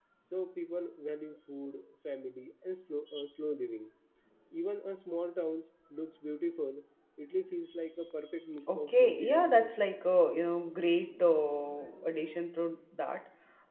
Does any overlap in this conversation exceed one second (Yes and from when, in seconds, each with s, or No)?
Yes, from 8.7 s